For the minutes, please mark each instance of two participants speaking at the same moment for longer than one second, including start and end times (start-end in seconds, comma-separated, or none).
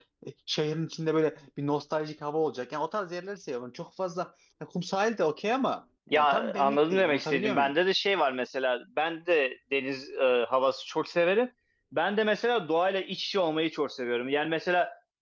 6.1-7.7